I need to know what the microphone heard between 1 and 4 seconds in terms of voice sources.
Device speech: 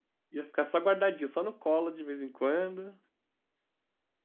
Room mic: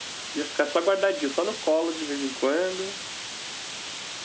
echo only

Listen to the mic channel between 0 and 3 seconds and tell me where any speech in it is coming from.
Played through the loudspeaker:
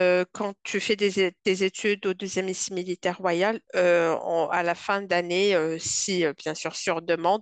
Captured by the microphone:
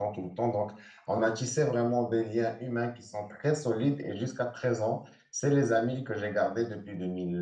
user only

